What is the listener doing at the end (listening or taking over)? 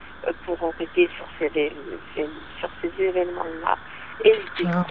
listening